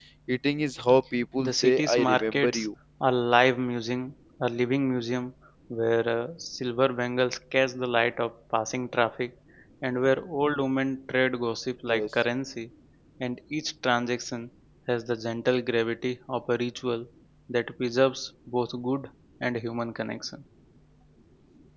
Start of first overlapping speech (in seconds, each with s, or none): 1.4 s